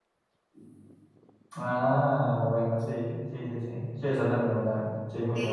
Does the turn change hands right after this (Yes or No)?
Yes